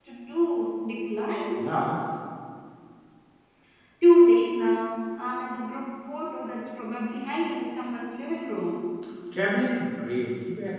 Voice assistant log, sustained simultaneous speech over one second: none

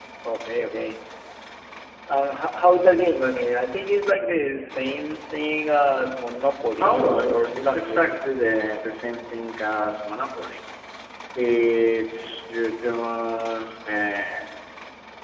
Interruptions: present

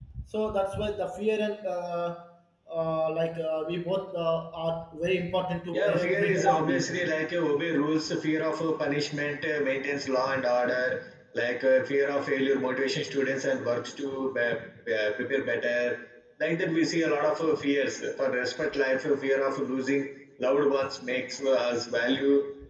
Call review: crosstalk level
present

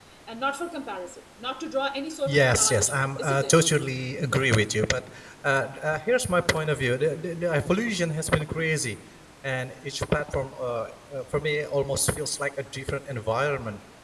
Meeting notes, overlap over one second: present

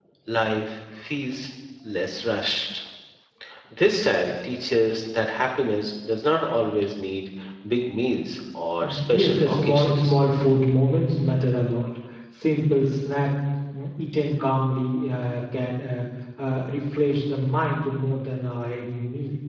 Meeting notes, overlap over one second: present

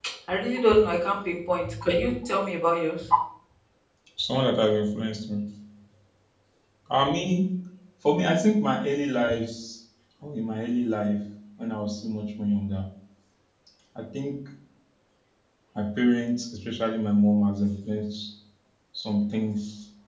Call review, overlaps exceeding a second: none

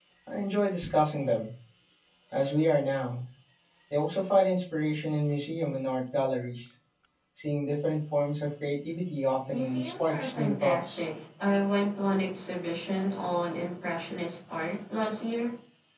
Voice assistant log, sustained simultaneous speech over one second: present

